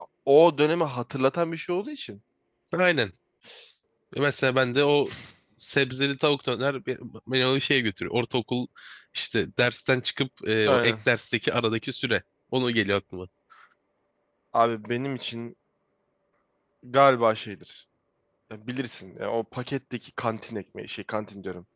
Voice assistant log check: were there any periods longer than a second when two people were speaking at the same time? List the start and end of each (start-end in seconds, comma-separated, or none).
none